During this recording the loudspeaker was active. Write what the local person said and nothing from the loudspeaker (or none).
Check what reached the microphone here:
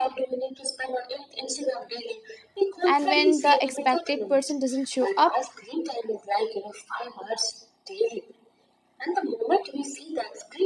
and when the expected person doesn't show up,